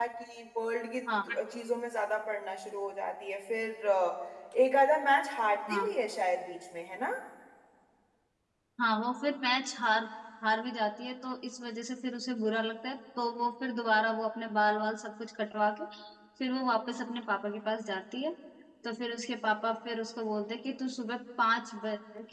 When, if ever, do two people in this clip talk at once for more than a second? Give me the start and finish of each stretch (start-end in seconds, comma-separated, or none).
none